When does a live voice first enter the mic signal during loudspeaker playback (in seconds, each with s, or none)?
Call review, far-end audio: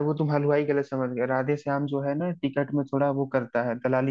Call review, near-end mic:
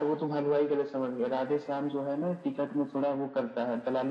none